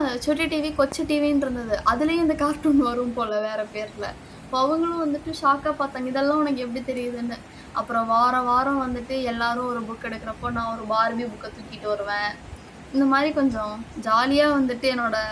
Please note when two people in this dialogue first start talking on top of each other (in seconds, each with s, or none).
none